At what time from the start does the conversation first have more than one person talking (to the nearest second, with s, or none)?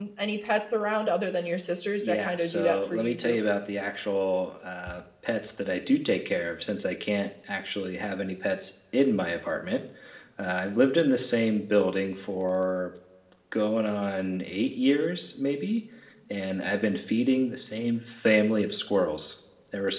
2 s